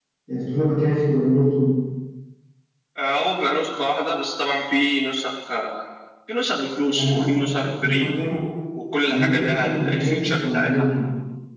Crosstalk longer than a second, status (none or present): present